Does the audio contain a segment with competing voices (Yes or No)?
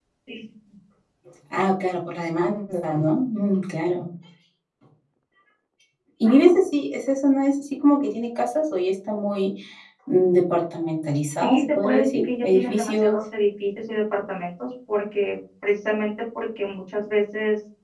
Yes